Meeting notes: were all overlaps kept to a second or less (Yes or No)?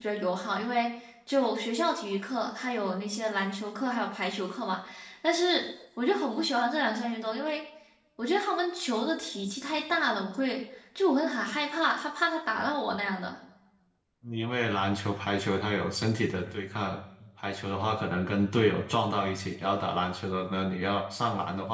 Yes